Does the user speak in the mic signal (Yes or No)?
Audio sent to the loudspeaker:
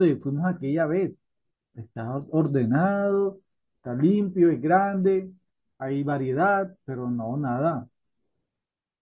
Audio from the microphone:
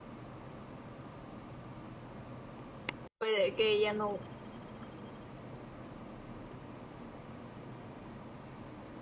Yes